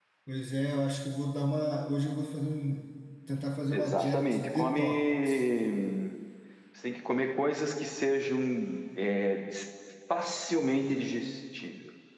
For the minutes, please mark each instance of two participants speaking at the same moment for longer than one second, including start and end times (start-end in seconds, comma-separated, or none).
3.7-5.4